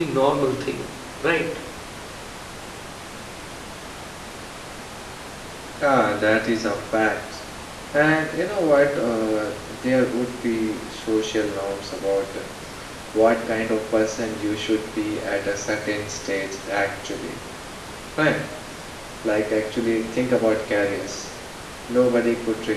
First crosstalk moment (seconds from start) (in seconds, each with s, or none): none